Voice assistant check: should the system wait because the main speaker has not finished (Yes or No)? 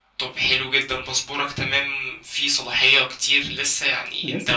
Yes